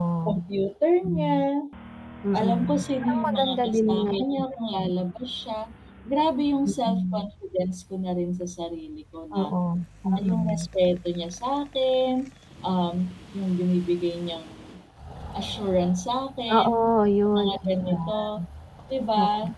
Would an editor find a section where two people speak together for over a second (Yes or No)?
Yes